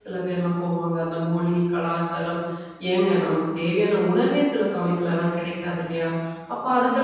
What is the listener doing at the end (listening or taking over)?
listening